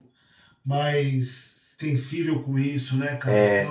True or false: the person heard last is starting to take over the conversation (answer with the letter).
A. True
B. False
A